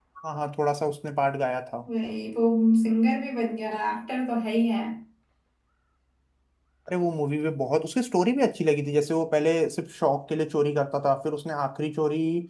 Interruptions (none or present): none